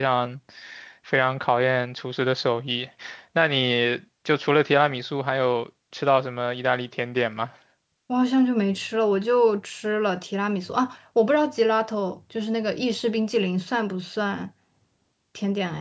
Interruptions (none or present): none